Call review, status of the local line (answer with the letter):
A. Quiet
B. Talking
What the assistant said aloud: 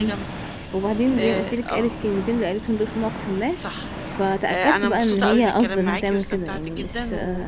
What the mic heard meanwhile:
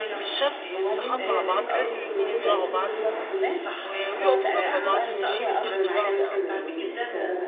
B